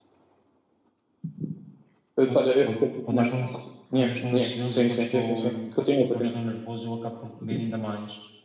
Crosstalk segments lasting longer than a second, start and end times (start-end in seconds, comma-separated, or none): 4.0-5.5